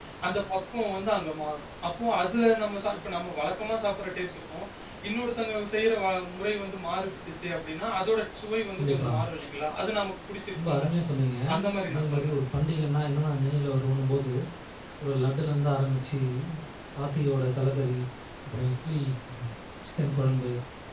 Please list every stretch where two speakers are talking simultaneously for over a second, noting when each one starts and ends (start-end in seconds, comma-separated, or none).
none